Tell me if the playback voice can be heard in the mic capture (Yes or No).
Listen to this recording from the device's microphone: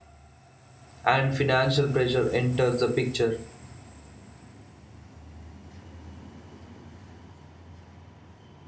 No